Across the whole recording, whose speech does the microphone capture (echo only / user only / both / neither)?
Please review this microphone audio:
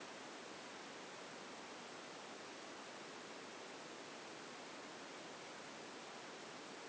neither